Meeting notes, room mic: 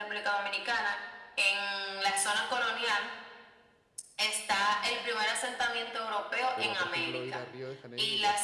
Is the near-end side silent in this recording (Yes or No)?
No